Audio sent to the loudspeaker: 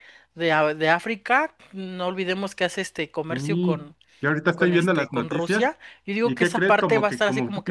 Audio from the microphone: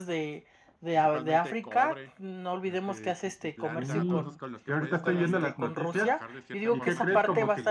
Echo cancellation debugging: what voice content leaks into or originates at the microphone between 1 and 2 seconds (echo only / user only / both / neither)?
both